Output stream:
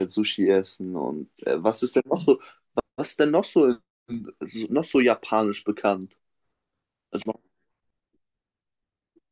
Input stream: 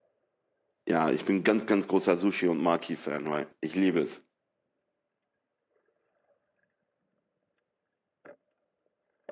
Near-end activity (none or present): present